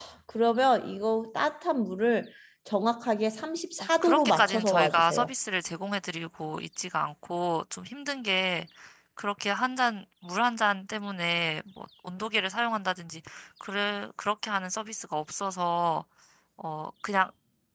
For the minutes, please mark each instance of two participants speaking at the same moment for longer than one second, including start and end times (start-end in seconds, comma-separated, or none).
3.8-5.3